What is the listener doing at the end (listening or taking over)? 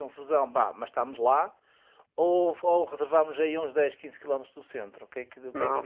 taking over